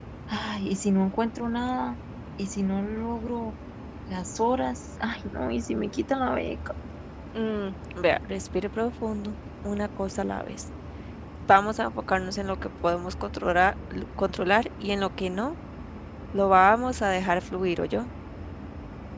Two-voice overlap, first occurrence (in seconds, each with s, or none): none